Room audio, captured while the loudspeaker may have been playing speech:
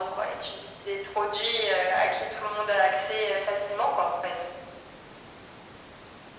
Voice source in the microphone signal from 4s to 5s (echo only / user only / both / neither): echo only